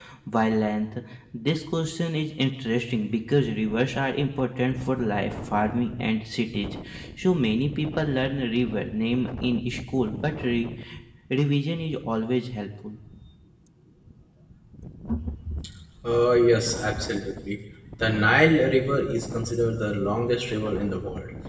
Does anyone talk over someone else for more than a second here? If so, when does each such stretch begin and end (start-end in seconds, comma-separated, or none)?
none